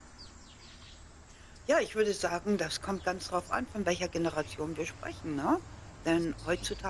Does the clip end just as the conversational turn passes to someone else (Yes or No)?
No